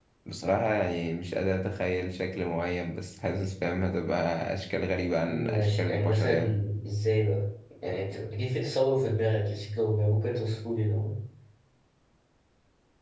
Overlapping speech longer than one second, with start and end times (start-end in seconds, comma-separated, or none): 5.2-6.6